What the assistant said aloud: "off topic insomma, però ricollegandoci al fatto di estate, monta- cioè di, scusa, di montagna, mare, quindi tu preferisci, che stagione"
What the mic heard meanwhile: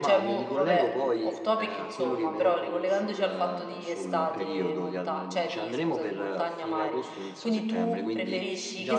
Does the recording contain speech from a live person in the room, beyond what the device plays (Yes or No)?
Yes